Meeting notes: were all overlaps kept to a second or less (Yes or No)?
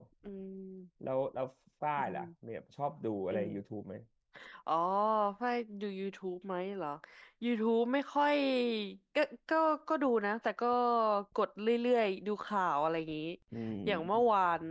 Yes